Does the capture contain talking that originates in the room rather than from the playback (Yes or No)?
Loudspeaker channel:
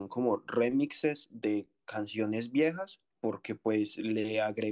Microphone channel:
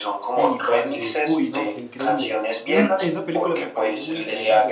Yes